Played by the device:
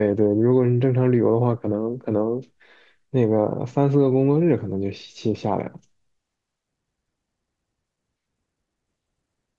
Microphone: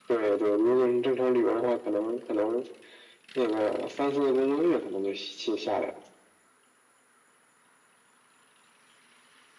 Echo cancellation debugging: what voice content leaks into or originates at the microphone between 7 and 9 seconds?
neither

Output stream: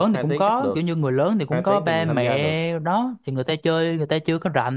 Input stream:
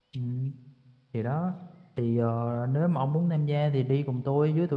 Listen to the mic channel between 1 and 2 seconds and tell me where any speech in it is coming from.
user only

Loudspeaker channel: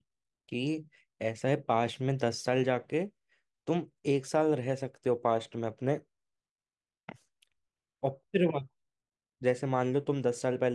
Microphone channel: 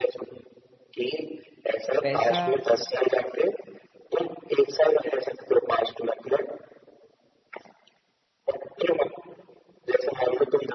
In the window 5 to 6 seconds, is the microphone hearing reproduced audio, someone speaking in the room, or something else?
echo only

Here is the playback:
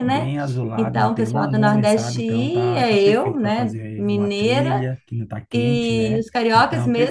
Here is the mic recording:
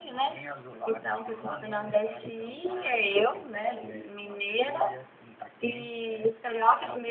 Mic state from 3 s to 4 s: both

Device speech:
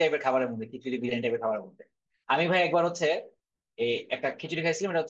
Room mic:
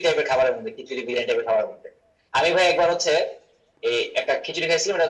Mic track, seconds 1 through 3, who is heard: echo only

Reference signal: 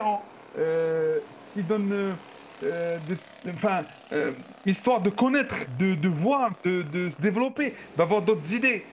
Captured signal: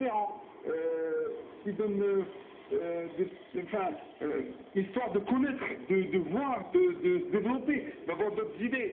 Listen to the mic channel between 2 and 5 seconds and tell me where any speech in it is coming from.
echo only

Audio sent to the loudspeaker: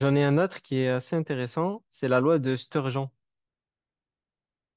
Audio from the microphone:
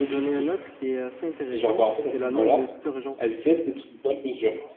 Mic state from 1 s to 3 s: both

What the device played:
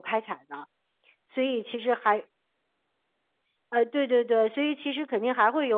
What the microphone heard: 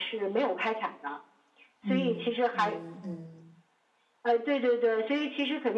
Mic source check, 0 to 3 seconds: both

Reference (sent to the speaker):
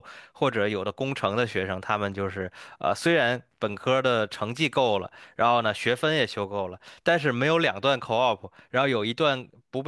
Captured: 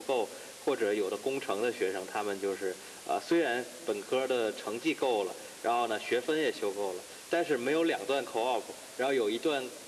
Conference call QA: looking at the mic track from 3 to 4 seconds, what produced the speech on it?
echo only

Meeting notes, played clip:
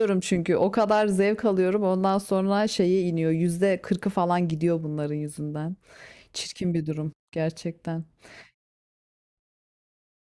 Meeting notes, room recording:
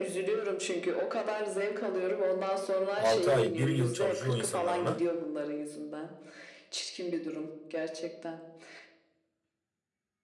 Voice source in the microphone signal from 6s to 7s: echo only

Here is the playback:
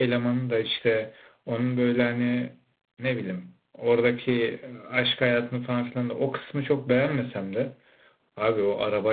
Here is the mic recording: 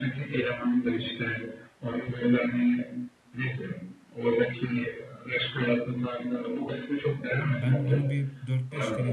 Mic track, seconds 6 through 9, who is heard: both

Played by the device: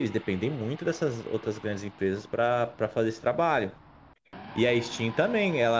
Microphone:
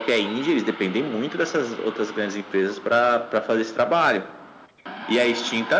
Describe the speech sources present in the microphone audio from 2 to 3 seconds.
echo only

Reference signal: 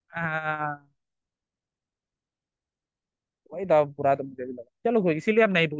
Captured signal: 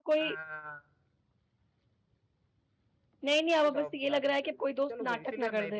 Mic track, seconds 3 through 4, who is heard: both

